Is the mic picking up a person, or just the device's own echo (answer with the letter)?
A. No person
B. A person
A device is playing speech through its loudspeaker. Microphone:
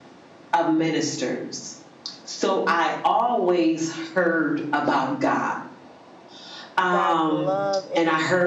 B